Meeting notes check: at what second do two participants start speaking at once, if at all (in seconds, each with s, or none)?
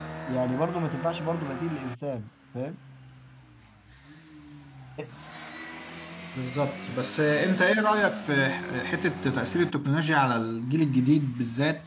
none